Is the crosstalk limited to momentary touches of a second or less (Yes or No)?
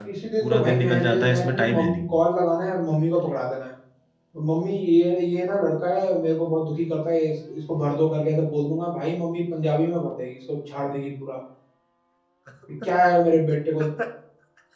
No